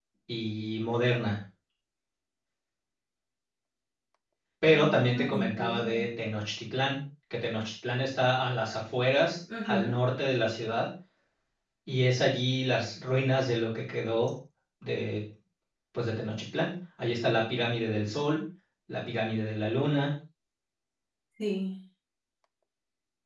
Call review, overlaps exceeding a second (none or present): present